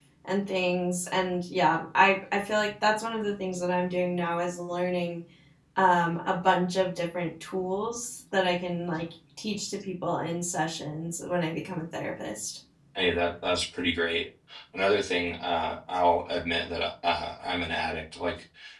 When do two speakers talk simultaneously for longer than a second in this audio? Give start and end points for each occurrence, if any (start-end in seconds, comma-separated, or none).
none